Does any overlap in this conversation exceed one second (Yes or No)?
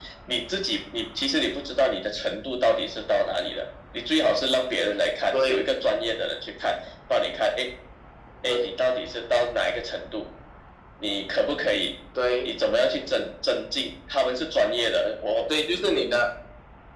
No